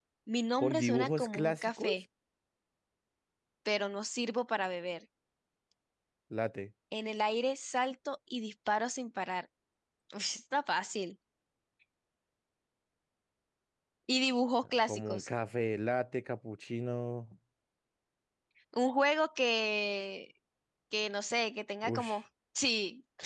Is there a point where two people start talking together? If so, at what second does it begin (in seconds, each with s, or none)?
0.6 s